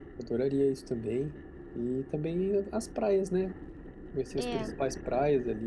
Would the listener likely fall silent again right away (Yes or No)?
Yes